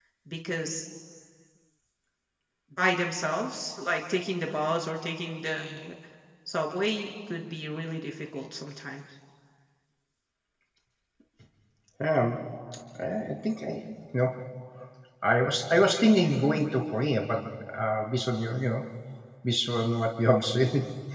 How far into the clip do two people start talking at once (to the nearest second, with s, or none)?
none